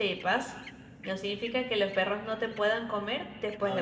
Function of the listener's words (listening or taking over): taking over